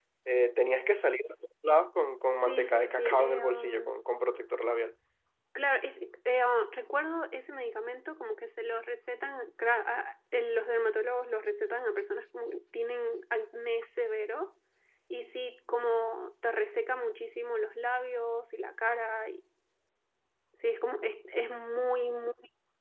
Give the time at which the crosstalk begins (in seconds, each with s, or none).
2.4 s